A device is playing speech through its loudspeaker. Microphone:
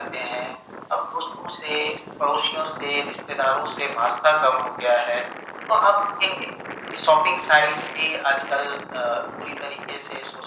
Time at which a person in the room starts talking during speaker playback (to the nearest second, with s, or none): none